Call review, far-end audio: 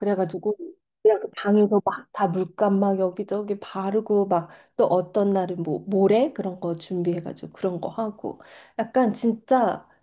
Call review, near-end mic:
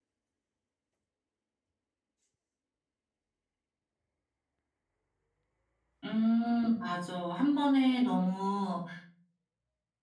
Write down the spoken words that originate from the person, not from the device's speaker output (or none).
음, 맞아. 한 번에 너무